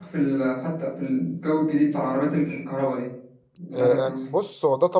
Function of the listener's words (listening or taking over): taking over